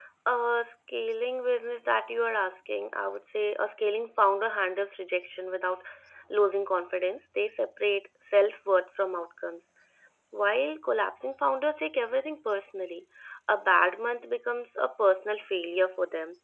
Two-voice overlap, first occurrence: none

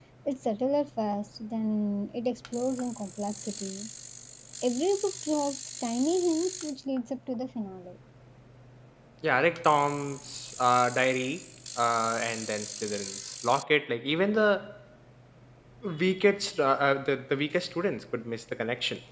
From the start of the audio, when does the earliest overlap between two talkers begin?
none

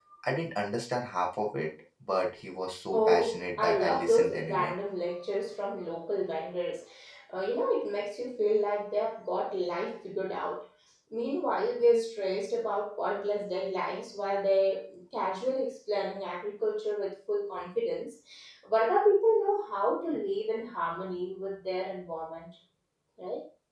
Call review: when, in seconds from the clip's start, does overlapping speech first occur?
2.9 s

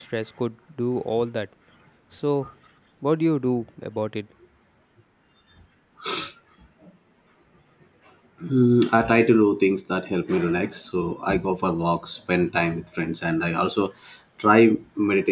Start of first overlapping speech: none

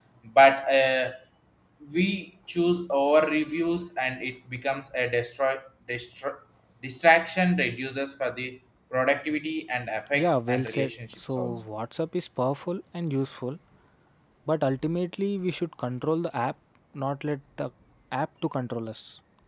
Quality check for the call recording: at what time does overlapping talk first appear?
10.1 s

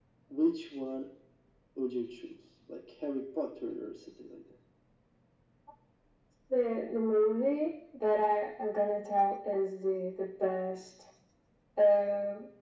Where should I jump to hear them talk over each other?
none

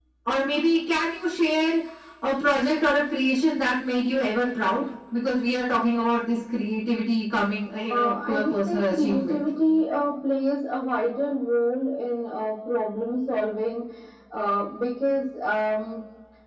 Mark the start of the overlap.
7.9 s

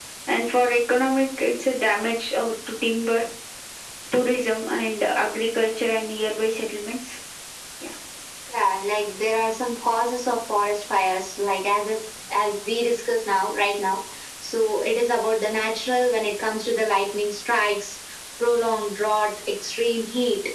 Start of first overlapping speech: none

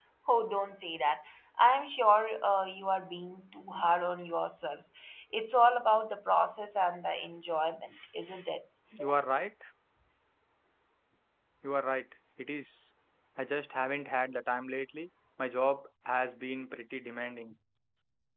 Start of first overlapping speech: none

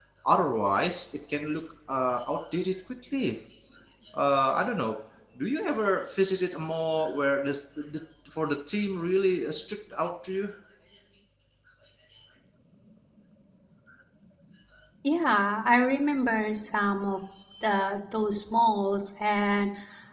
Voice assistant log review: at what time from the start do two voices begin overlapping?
none

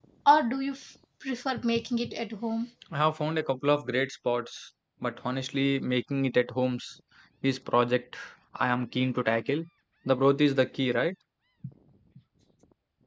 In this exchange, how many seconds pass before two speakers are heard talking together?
none

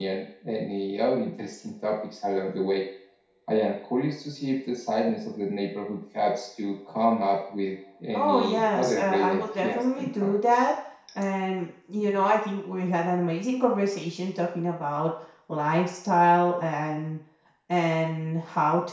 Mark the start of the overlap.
8.1 s

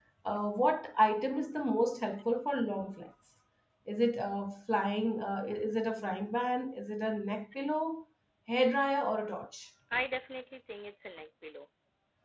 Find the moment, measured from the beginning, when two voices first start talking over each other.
none

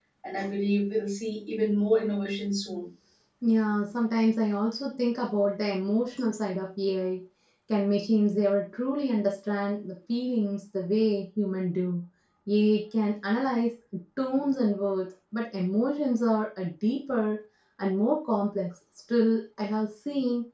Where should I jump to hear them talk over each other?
none

